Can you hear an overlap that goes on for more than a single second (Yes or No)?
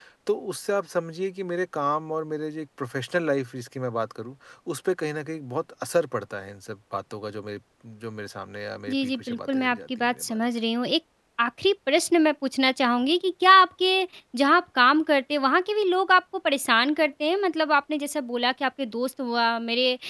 Yes